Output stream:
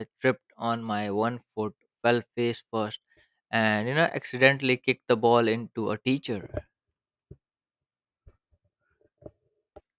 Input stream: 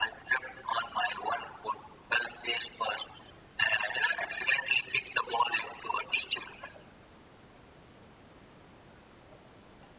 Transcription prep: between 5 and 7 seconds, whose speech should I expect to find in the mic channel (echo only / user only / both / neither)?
echo only